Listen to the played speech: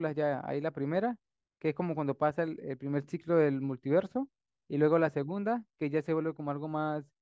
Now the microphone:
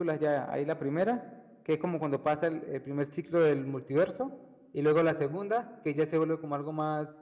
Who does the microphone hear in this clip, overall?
echo only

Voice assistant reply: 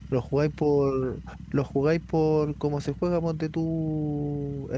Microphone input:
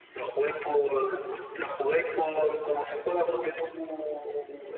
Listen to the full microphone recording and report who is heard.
echo only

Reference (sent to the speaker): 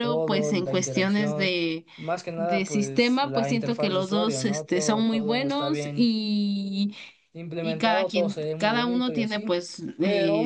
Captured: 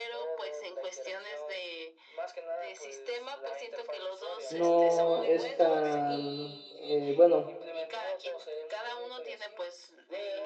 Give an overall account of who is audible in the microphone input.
both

